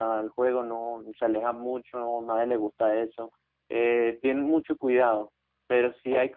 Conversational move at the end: listening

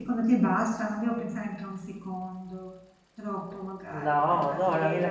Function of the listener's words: taking over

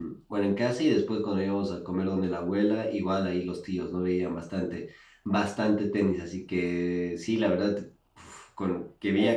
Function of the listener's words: taking over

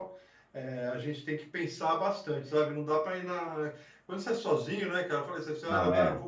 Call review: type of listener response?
listening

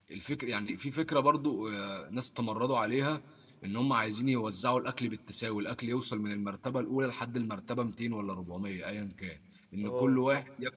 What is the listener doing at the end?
listening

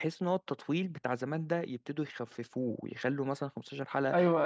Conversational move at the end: taking over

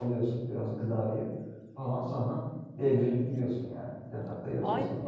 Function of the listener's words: taking over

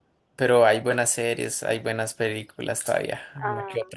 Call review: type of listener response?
taking over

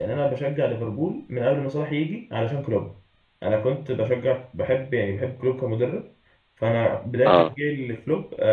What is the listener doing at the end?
listening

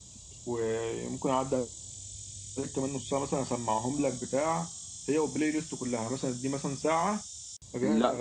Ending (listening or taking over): listening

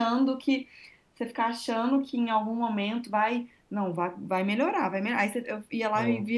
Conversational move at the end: listening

